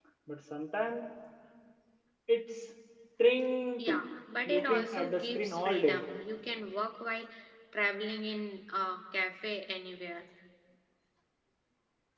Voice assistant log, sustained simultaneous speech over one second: present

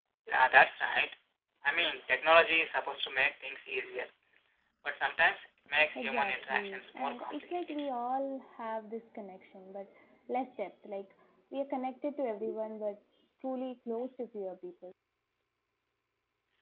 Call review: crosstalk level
present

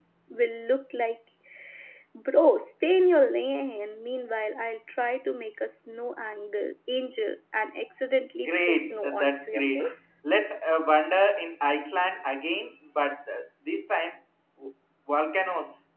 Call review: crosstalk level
present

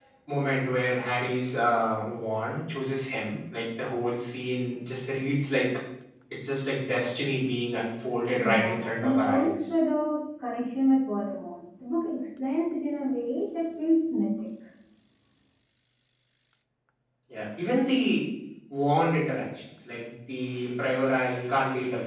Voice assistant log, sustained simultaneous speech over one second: present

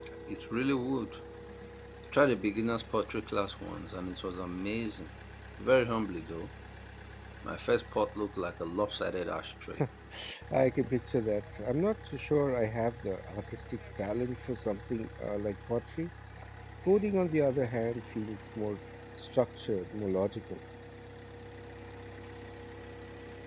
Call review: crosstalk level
none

